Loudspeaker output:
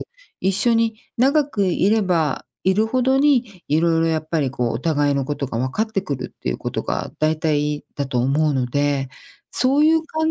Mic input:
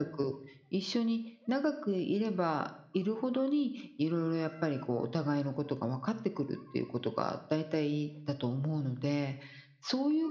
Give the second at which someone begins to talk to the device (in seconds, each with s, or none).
none